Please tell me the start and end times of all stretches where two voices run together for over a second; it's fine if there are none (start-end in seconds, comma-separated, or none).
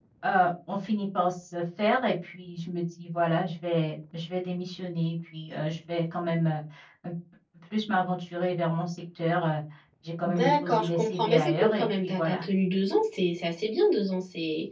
10.2-12.4